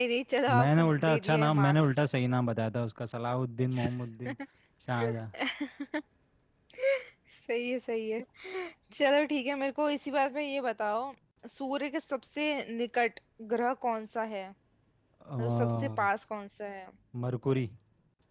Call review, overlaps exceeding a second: present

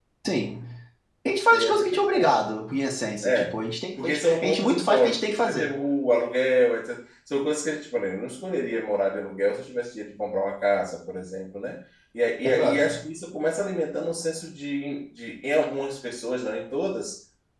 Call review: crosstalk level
present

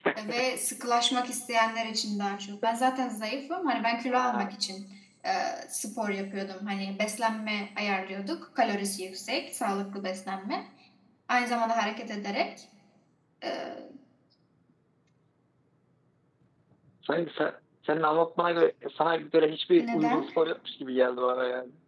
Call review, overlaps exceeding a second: none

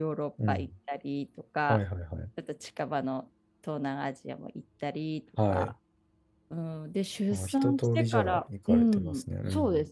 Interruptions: present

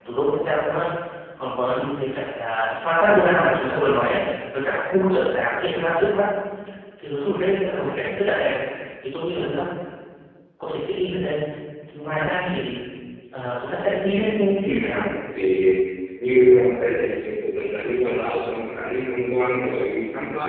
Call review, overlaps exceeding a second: none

